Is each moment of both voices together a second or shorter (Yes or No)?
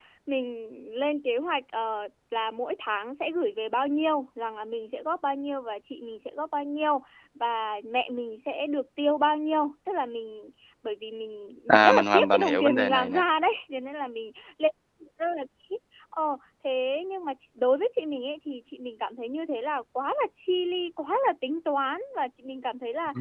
No